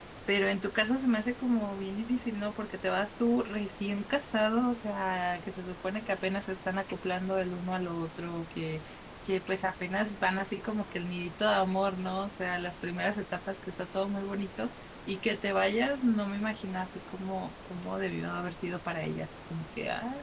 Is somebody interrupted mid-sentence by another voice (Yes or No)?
No